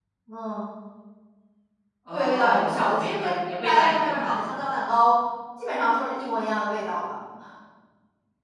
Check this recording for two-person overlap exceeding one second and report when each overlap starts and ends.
2.1-4.4

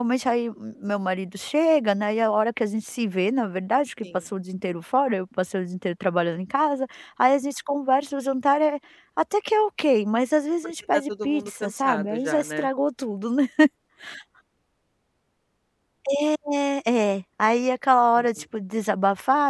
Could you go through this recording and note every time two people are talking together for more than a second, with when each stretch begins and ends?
10.9-12.7

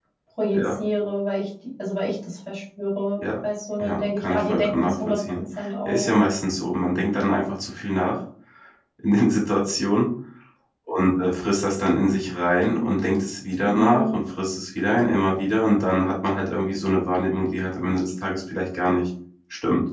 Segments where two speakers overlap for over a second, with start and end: 3.8-5.2

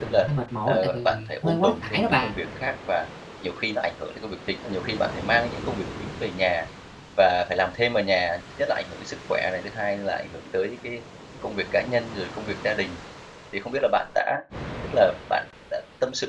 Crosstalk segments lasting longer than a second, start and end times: 0.7-2.3

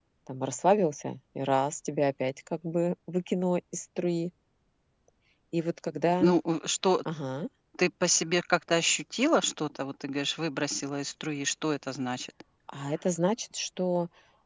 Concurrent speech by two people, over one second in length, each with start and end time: none

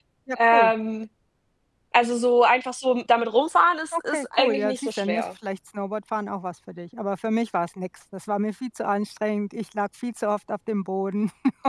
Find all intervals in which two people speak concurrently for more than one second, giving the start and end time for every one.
3.9-5.2

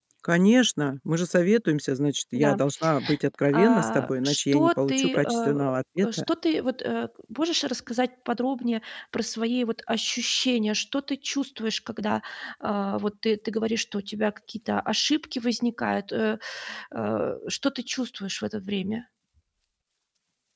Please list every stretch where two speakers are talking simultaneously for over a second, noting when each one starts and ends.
3.5-6.1

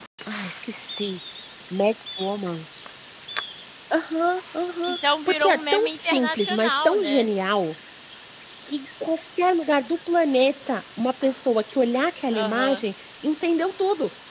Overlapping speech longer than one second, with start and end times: 4.9-7.3

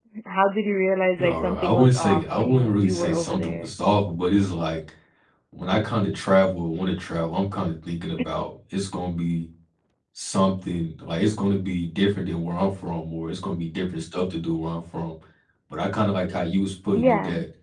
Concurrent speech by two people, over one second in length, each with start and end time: 1.2-3.7

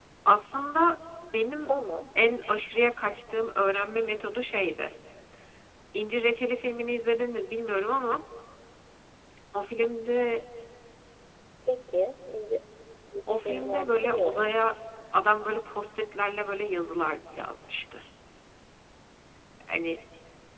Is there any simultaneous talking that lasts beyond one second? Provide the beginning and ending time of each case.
13.3-14.5

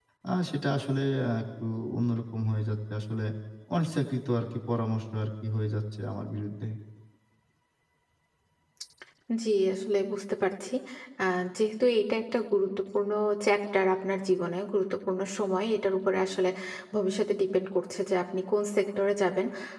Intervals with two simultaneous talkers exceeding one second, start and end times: none

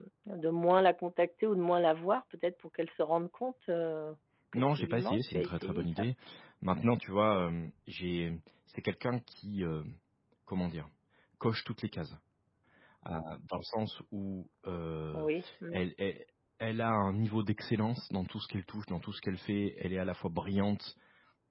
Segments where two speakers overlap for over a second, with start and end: 4.5-6.1

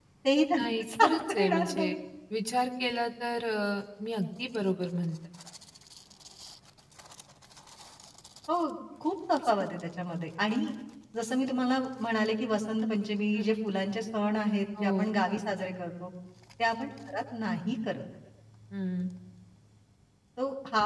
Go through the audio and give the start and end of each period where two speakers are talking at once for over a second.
0.6-1.9

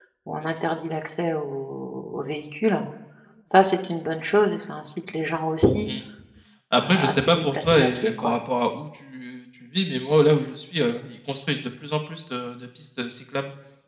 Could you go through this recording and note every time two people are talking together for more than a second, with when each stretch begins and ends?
6.7-8.3

